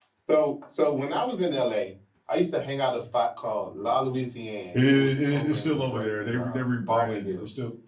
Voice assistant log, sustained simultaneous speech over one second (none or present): present